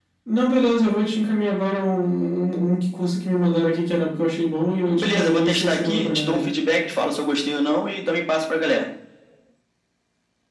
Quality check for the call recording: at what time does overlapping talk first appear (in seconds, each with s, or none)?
5.0 s